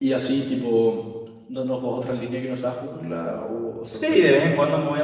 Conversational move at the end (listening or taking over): taking over